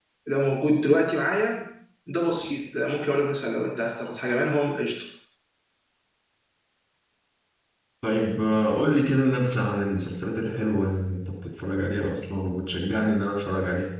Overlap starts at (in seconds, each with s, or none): none